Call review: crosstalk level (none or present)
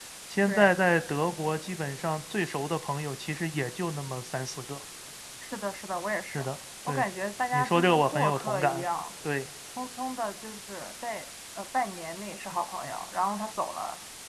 present